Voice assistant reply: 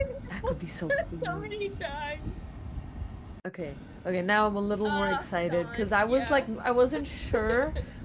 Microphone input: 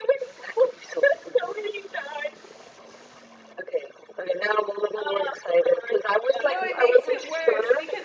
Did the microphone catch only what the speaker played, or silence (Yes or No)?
No